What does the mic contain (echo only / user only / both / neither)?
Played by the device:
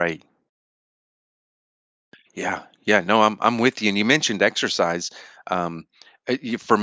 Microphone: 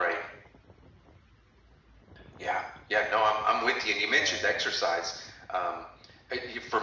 both